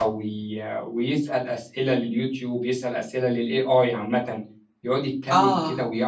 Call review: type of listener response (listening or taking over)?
listening